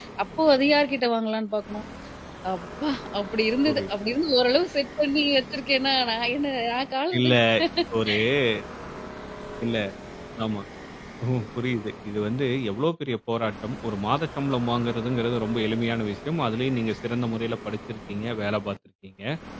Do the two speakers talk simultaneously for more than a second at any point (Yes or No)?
No